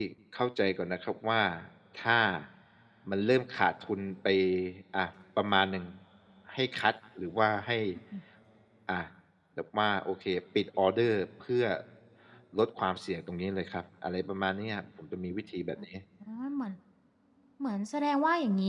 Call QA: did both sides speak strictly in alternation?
Yes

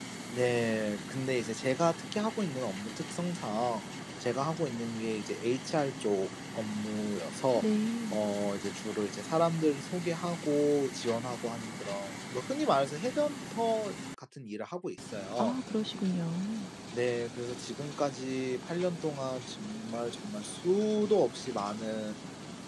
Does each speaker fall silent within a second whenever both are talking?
Yes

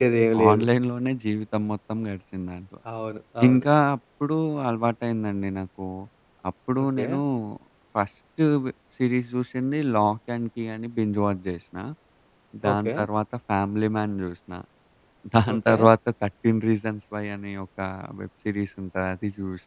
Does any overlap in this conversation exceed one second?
No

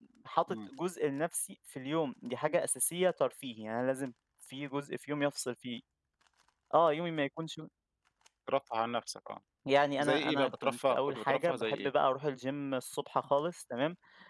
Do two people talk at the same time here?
Yes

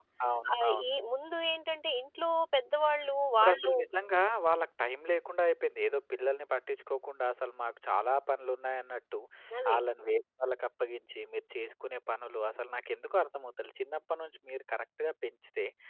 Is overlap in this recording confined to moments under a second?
Yes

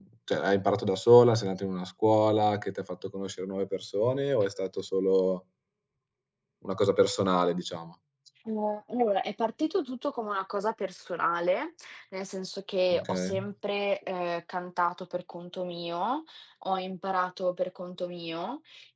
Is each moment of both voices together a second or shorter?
Yes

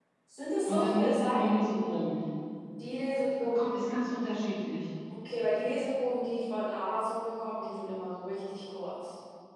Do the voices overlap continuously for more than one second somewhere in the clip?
Yes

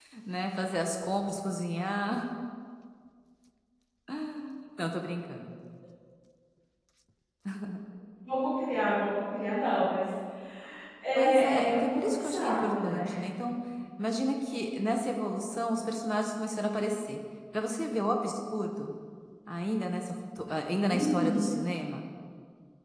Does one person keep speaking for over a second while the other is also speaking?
Yes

